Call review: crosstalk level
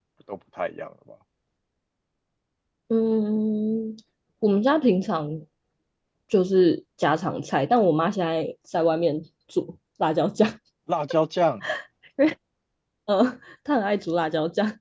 none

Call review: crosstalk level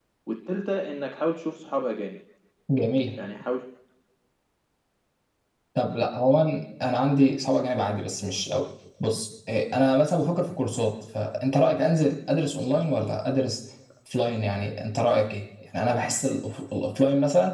none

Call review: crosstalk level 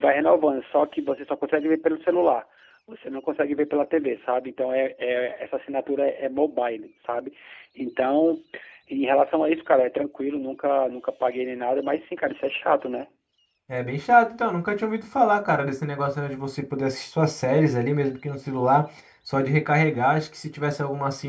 none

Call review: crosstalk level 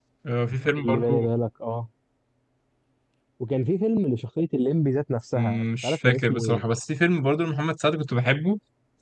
present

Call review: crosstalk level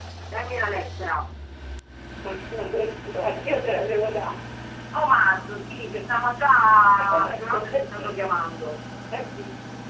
present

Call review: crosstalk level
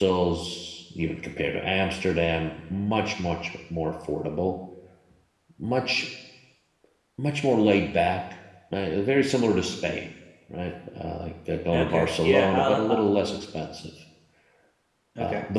present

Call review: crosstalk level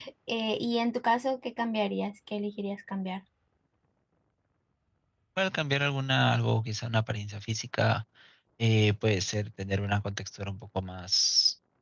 none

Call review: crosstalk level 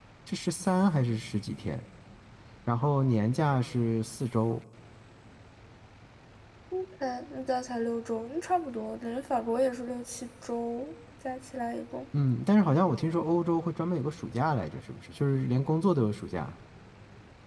none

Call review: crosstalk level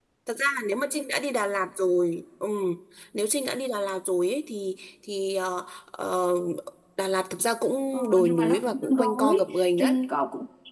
present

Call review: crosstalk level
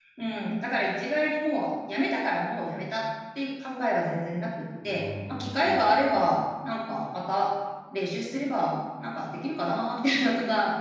present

